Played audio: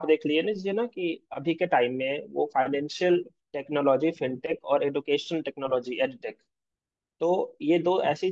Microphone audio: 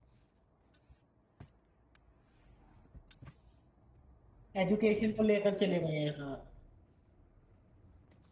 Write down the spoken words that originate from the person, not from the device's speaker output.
एजुकेशन को लेकर चले गए हैं हाँ

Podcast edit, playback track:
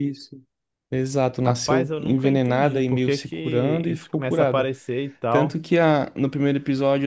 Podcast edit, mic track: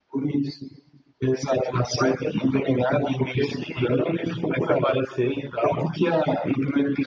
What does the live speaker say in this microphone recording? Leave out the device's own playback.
none

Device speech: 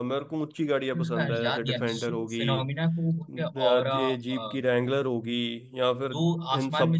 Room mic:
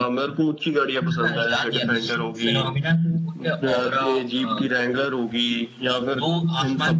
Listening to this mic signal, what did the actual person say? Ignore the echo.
none

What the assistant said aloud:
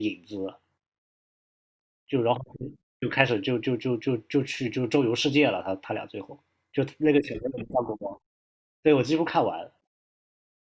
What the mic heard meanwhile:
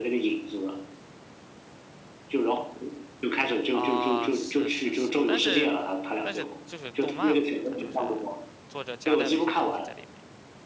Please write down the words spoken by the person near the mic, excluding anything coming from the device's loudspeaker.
啊，是是是，但是但是就是动漫嘛，它就是作者夹带了一些东西在里面。

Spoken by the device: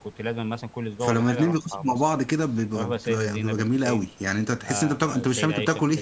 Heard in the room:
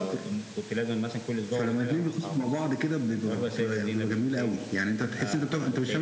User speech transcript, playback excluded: none

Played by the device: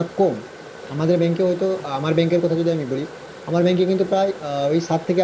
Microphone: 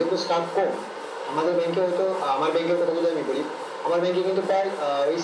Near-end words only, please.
none

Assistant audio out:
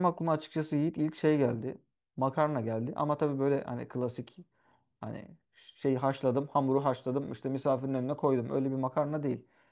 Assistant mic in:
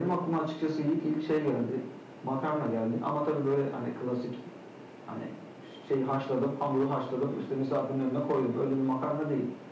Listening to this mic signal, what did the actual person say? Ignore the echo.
none

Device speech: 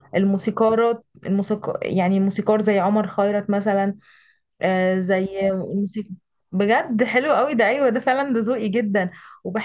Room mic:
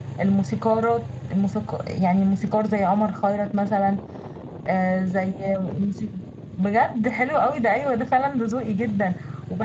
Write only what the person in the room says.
none

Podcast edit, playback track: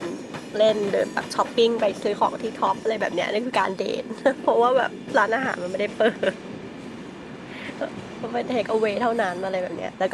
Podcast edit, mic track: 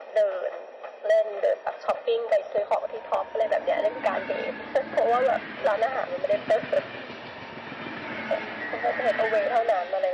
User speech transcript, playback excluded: none

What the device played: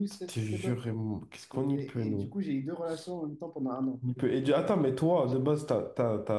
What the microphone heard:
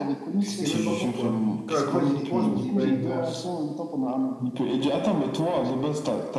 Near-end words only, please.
Je sais même pas pourquoi. Quand, quand j'y repense, je me dis, ouais, voilà.

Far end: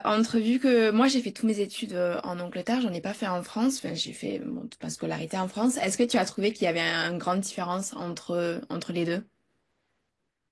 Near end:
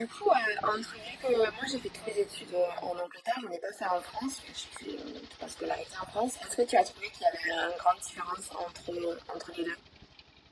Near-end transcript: none

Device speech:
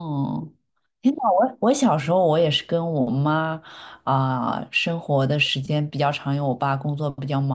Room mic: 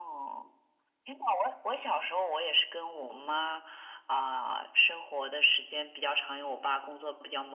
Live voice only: none

